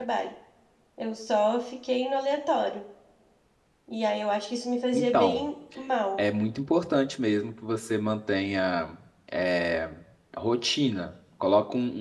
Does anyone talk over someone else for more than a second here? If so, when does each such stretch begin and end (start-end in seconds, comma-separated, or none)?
none